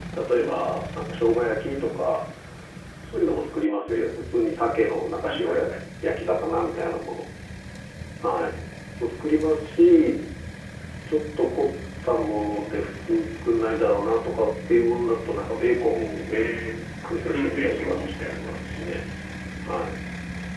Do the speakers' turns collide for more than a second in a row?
Yes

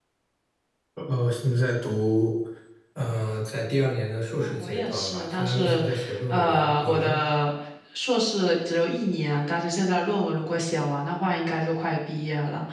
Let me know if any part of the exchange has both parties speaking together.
Yes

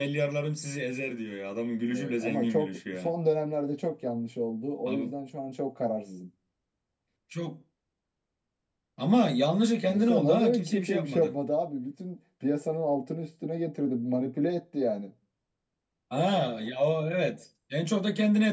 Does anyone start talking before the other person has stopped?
Yes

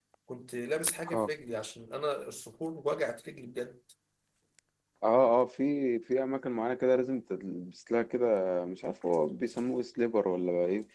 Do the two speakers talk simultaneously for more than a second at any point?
No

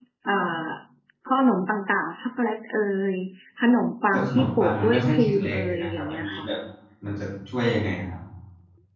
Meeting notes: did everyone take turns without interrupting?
No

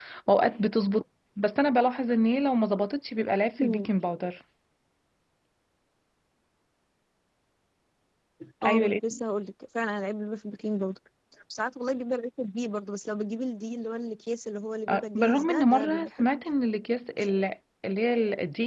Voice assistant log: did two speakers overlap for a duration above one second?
Yes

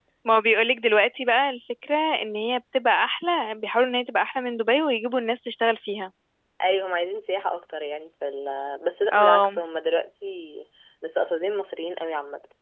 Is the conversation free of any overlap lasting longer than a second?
Yes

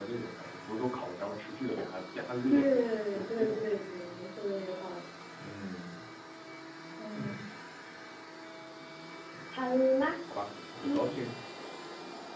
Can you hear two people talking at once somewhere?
Yes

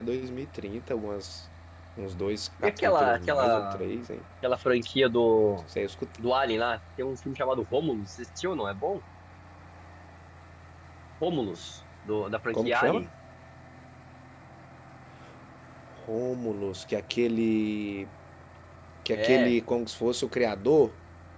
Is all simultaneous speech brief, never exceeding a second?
No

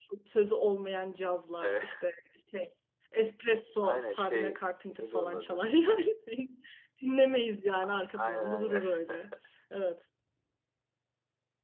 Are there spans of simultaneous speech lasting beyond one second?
Yes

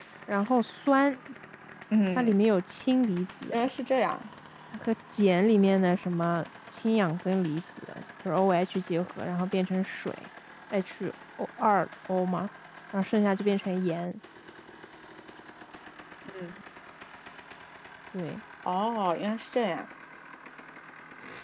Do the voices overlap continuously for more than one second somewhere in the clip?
No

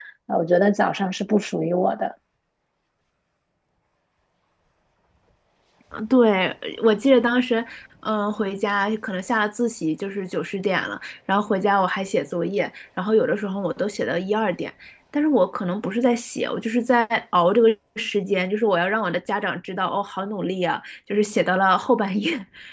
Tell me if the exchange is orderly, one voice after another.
Yes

